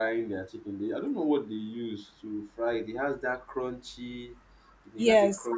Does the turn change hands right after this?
Yes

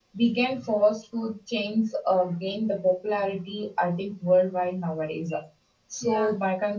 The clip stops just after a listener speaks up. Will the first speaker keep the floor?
Yes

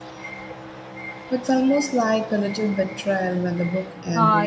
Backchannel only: No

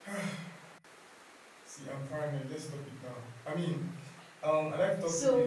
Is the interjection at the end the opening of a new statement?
No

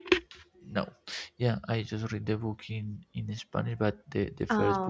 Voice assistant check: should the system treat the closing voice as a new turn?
No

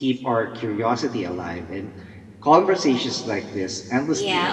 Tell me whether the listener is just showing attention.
No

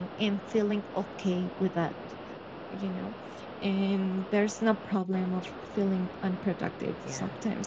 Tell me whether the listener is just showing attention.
Yes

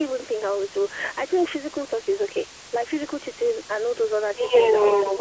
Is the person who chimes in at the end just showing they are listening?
Yes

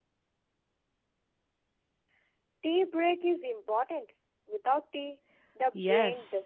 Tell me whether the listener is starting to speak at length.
Yes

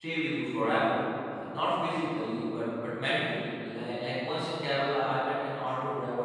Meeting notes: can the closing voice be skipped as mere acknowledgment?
Yes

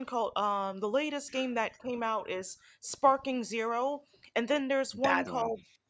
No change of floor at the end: Yes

